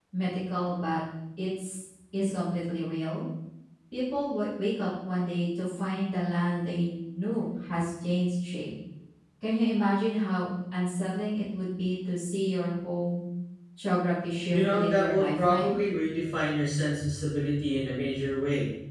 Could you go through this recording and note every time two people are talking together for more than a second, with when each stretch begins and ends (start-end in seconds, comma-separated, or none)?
14.5-15.8